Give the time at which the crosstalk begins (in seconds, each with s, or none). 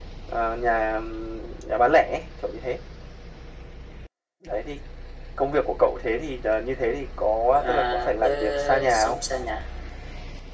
7.6 s